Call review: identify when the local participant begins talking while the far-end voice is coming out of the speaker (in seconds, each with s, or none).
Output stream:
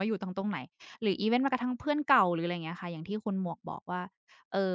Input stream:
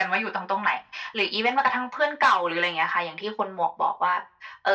none